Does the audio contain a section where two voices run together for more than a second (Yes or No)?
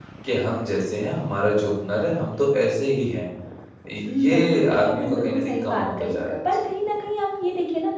Yes